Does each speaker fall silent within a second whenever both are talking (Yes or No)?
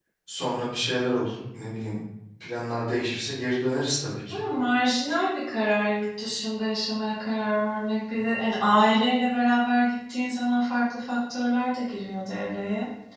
Yes